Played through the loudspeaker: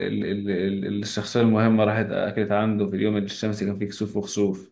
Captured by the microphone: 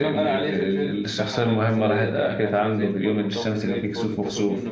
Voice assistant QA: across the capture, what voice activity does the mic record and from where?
both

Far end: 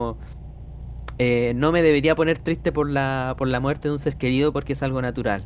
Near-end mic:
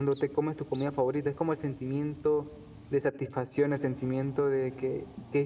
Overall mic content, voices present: user only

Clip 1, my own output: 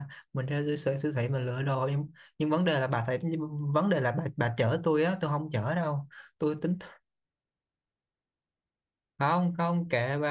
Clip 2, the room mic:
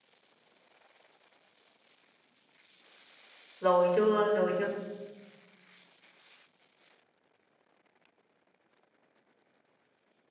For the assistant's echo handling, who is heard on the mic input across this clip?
user only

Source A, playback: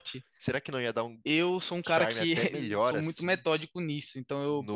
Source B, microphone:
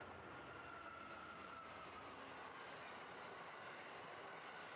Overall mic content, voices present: neither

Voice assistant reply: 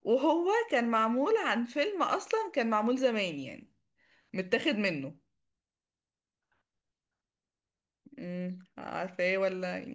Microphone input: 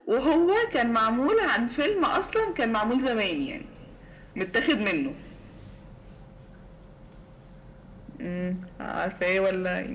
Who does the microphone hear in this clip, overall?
echo only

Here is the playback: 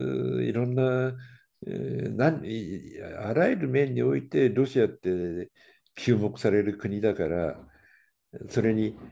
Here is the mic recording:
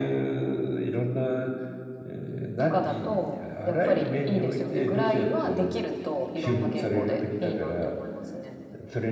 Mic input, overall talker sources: both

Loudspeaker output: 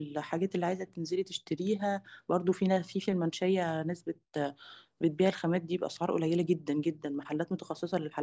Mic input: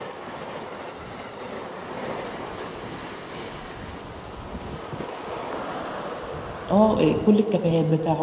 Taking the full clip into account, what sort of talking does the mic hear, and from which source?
user only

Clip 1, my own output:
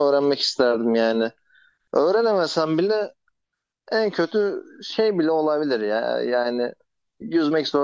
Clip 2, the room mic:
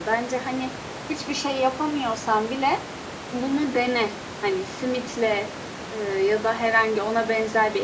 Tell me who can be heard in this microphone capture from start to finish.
user only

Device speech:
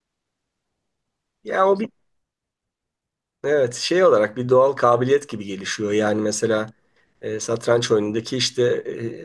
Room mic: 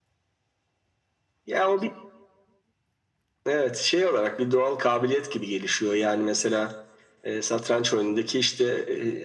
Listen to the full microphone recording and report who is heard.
echo only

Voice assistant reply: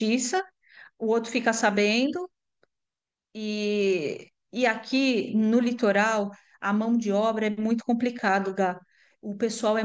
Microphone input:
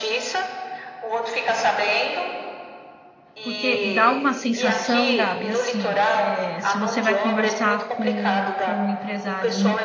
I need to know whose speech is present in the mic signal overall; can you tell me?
both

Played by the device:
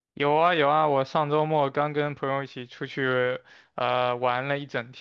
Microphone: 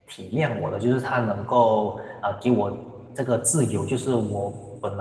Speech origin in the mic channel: user only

